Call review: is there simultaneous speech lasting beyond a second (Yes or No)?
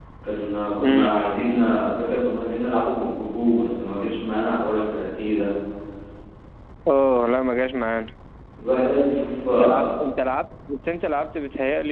No